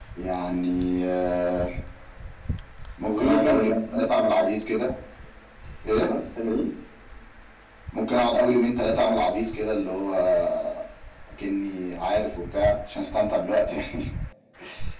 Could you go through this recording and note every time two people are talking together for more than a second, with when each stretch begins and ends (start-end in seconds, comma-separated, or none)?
3.0-4.5